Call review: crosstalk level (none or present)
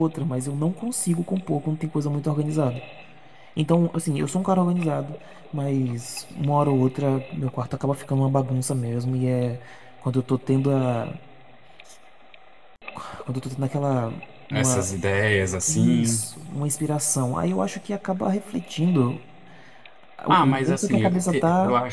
present